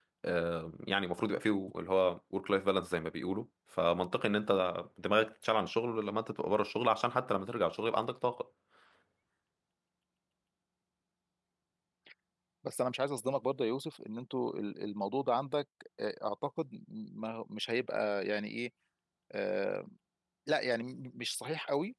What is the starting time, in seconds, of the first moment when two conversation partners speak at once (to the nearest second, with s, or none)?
none